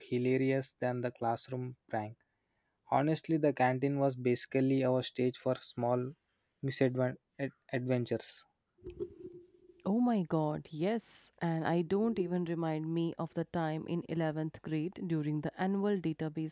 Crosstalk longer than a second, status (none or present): none